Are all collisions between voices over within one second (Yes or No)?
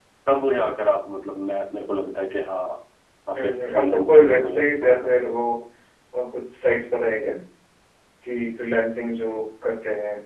No